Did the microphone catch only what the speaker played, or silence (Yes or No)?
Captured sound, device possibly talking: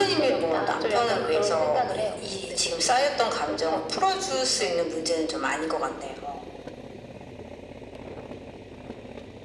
Yes